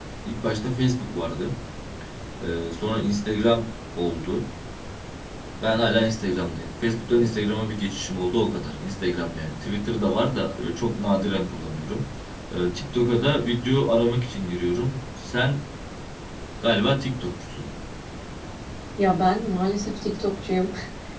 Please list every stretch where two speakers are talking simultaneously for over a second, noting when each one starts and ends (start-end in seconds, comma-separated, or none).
none